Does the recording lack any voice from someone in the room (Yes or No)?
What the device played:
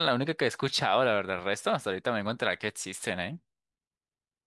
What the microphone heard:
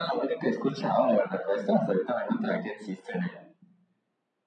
Yes